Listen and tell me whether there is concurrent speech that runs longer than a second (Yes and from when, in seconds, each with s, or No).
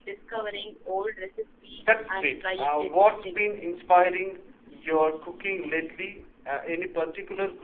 Yes, from 1.8 s